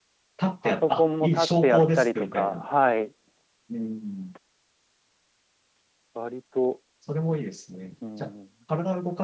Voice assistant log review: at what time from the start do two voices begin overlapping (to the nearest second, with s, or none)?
1 s